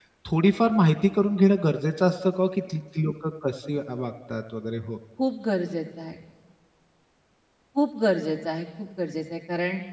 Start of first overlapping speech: none

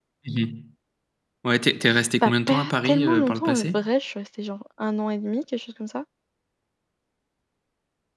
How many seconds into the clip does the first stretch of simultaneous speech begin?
2.2 s

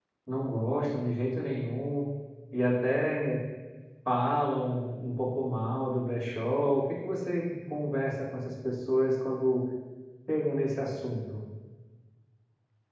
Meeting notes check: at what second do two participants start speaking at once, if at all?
none

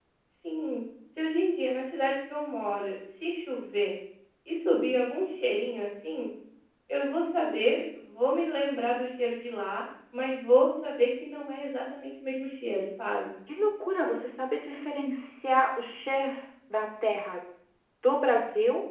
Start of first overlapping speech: none

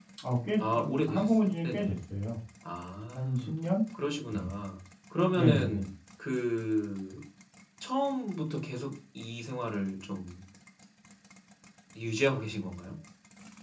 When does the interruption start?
0.6 s

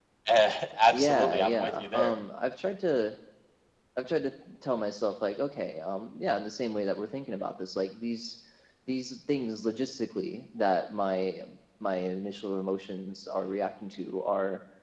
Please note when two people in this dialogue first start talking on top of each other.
0.9 s

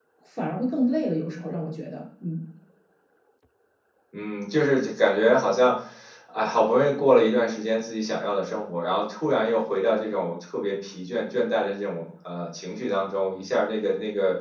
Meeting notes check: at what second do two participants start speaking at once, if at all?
none

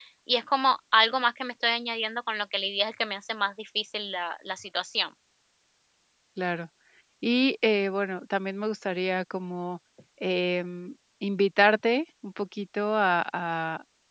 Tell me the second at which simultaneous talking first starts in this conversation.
none

